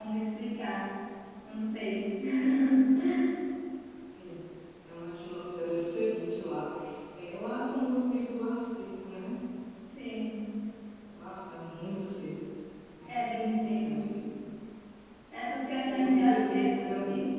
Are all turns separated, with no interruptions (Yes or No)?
No